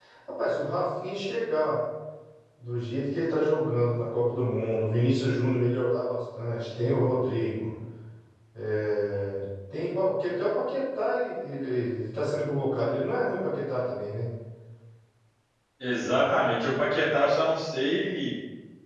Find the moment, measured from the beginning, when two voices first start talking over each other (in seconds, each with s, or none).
none